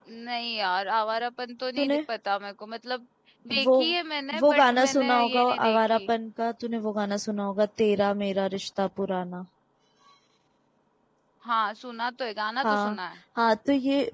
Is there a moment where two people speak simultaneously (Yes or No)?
Yes